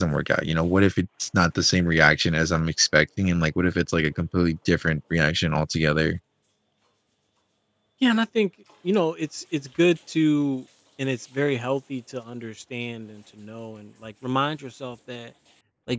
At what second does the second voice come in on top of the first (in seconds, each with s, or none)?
none